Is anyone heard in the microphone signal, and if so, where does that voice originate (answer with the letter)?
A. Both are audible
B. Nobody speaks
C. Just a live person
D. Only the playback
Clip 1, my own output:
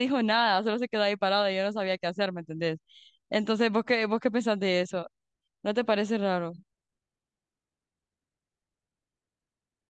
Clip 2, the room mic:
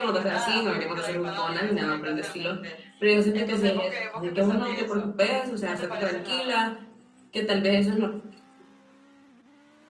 A